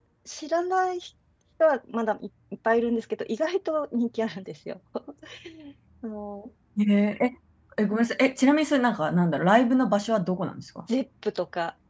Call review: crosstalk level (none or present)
none